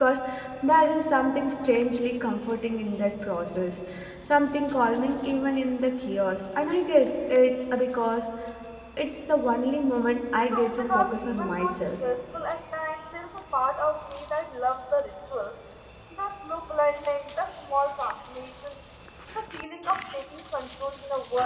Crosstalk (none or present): present